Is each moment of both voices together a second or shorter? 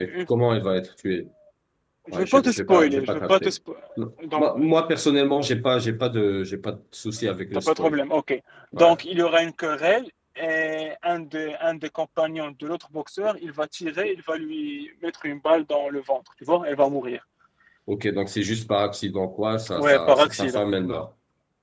No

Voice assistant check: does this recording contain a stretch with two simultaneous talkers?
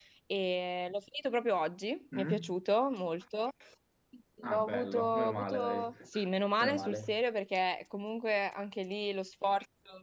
Yes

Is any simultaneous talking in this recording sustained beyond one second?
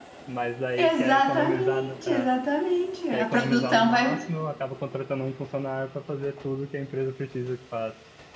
Yes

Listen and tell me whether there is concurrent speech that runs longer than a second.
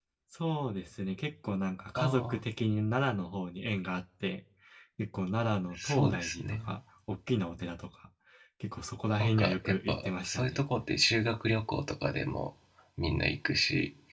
Yes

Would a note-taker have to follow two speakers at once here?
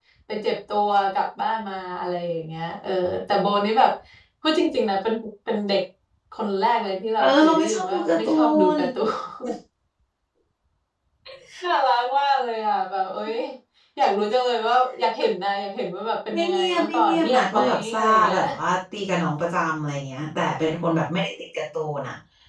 Yes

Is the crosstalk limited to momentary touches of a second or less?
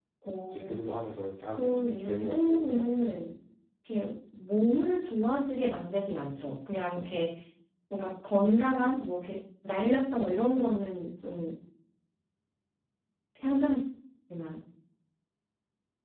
No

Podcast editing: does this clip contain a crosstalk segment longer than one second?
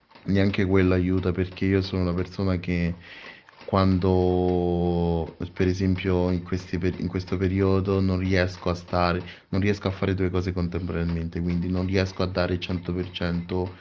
No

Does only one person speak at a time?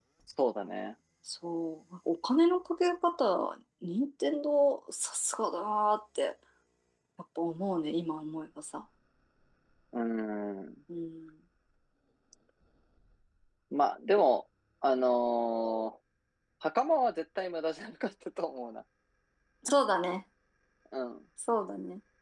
Yes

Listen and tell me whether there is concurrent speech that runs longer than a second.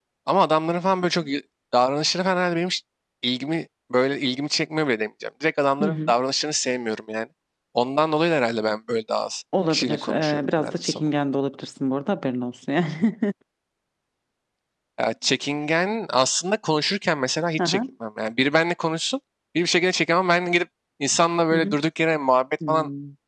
Yes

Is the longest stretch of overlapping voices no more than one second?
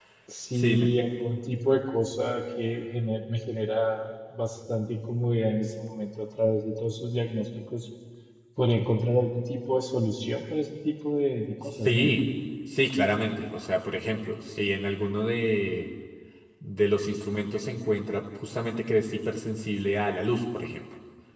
Yes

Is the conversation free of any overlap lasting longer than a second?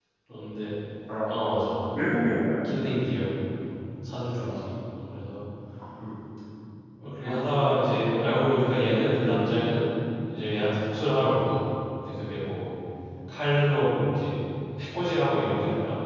Yes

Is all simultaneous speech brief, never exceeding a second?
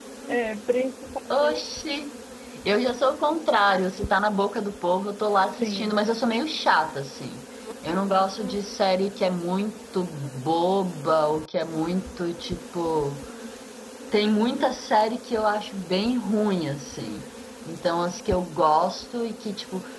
Yes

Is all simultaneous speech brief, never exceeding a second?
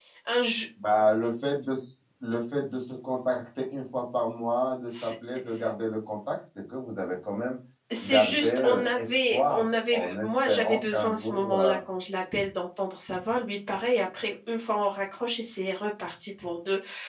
No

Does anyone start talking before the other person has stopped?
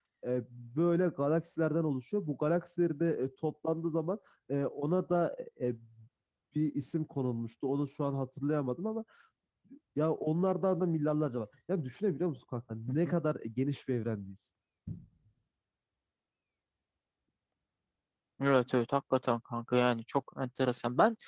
No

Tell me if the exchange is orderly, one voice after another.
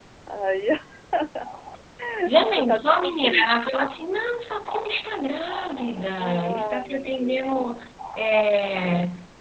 No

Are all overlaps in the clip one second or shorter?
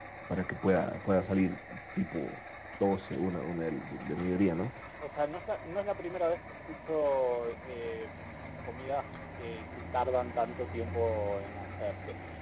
Yes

